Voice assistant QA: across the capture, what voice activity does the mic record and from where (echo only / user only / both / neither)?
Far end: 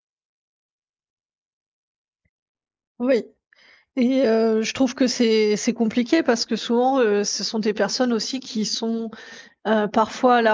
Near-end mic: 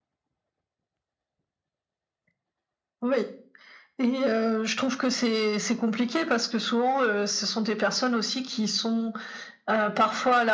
echo only